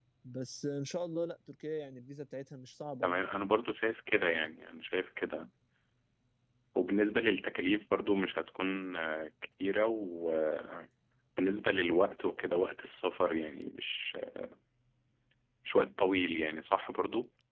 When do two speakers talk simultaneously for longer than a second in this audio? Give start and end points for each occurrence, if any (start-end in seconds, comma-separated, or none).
none